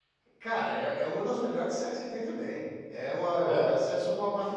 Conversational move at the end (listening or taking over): listening